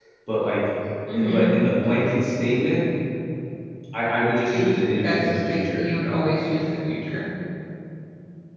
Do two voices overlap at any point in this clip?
Yes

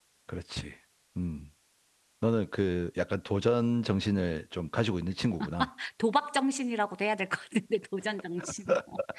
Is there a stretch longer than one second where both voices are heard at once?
No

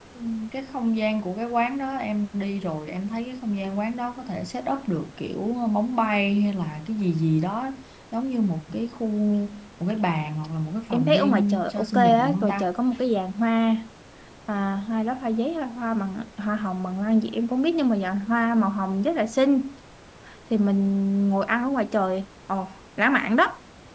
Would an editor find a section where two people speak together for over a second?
Yes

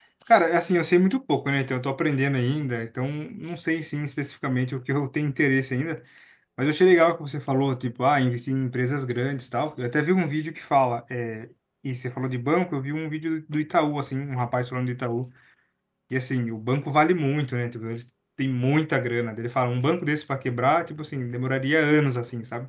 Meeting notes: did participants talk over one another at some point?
No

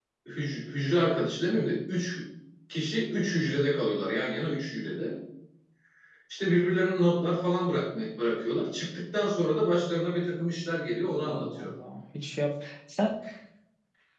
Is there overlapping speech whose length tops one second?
No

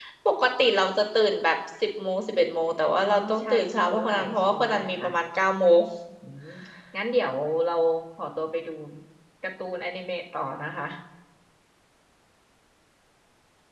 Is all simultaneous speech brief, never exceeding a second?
No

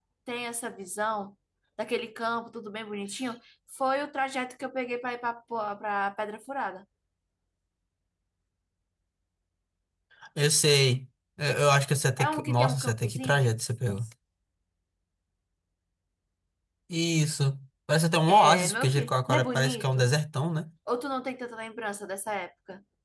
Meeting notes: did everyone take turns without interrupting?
No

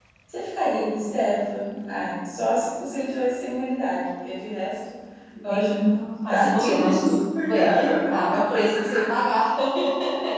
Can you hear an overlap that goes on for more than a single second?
Yes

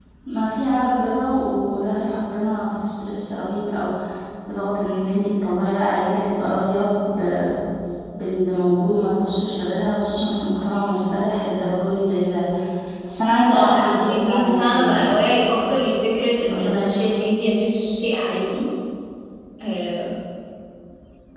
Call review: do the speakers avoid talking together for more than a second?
No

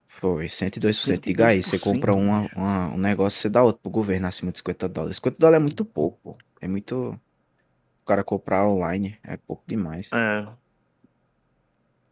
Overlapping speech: Yes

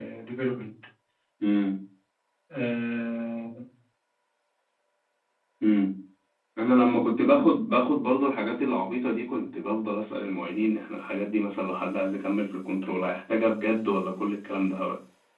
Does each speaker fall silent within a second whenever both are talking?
Yes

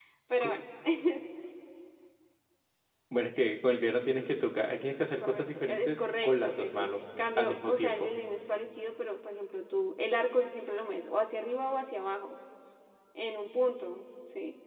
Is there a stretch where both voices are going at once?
Yes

